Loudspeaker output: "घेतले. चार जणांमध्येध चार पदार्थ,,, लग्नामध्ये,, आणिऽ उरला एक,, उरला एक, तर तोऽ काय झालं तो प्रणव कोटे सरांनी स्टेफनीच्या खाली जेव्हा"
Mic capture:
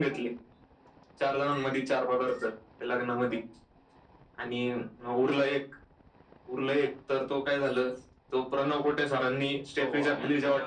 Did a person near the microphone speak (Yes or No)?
Yes